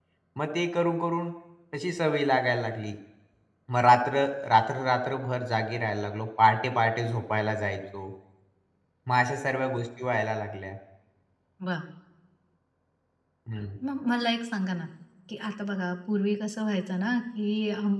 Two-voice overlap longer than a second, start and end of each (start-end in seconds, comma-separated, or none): none